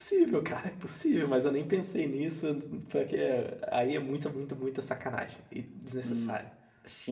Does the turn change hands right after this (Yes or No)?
Yes